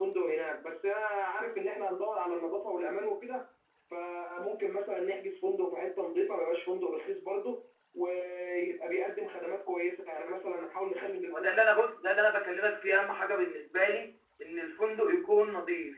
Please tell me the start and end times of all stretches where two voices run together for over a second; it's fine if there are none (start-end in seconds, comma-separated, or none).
none